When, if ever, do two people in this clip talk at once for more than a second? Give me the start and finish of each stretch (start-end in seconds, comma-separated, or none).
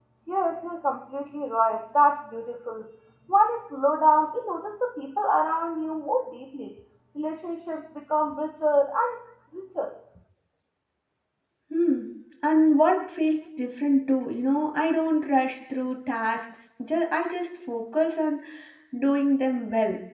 none